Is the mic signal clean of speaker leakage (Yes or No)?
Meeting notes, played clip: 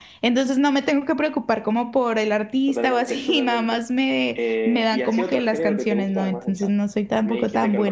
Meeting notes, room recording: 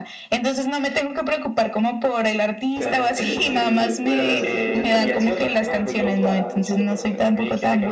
No